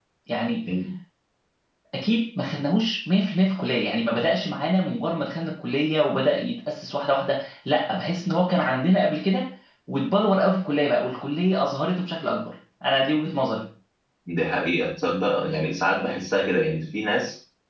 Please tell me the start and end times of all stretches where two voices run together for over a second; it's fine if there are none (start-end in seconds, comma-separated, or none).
none